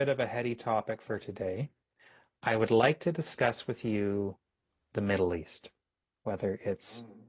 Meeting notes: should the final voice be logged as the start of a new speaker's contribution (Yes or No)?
No